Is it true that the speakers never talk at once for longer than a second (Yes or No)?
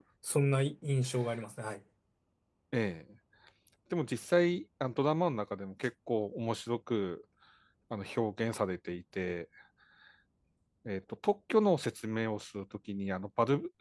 Yes